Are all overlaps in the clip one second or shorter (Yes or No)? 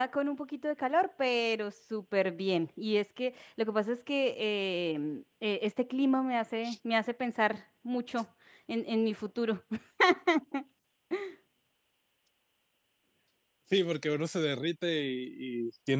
Yes